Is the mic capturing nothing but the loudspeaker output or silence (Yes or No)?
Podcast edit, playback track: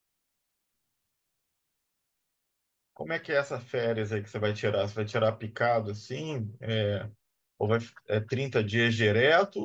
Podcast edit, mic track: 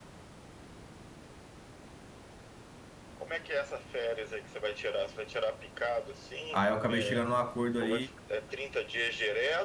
No